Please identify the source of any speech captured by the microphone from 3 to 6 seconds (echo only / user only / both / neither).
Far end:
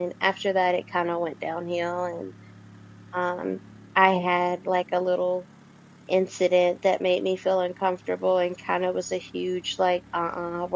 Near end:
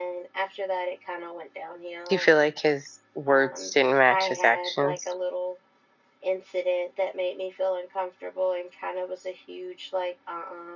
both